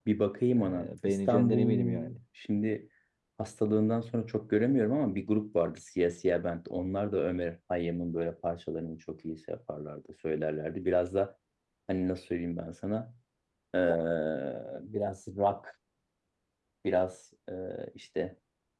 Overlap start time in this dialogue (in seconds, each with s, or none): 0.6 s